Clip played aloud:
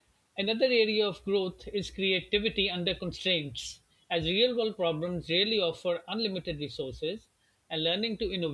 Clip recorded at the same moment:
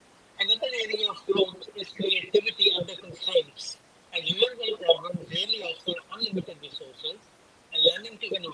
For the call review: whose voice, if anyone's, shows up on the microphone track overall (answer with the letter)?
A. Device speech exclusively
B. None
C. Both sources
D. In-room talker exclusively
A